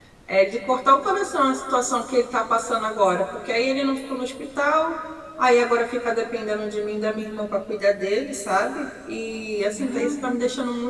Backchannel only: Yes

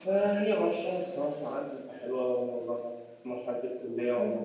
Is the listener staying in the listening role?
Yes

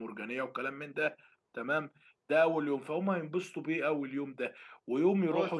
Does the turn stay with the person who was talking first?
No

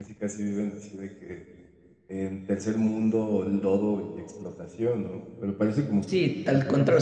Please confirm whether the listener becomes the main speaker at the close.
Yes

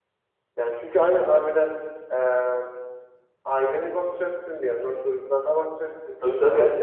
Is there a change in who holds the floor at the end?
Yes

